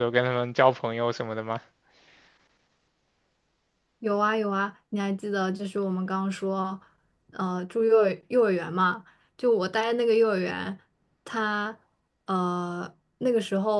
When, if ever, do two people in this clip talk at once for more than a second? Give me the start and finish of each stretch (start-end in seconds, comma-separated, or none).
none